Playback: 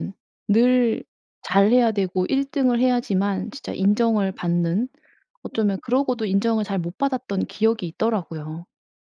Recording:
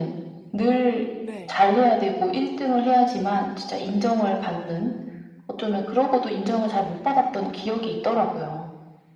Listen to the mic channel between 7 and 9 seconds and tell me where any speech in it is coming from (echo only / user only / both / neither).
echo only